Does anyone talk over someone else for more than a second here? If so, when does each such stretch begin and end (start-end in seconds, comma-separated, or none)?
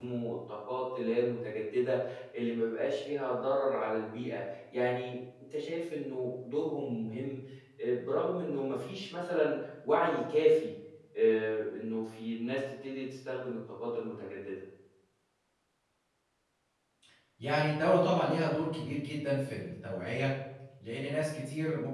none